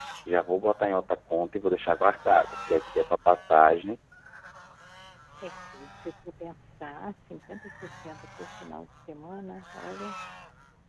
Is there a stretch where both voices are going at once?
No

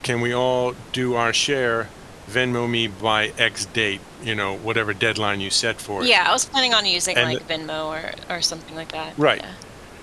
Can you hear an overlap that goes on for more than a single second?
No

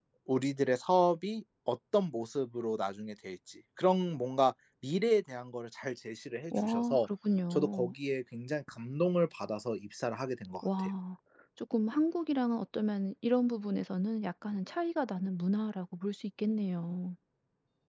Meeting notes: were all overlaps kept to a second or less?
Yes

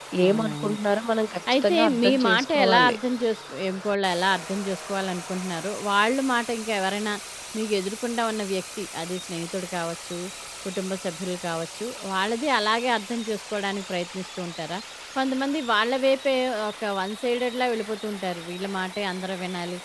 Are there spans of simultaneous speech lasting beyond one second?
Yes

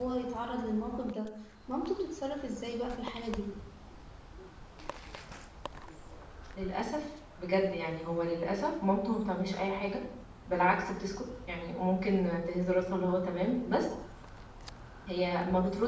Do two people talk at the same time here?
No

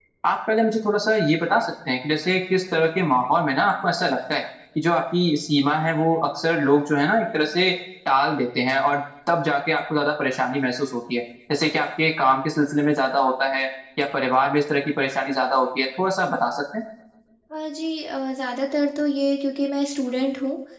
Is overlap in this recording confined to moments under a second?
Yes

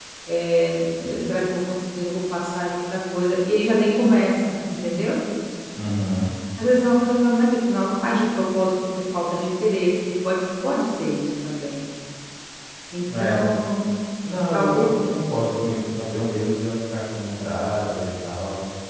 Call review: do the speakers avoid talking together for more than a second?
Yes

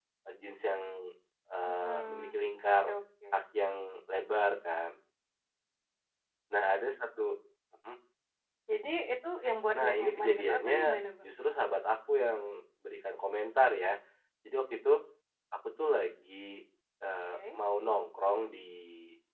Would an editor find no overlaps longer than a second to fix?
No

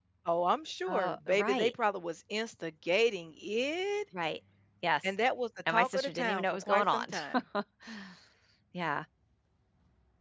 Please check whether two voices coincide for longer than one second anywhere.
Yes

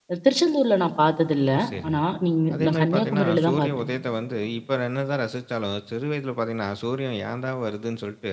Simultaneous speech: Yes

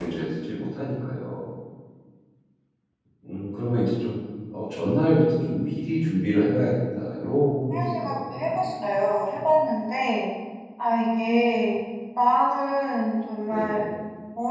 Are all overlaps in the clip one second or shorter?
No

